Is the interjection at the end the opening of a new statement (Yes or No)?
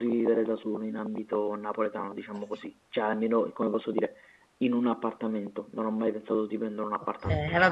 Yes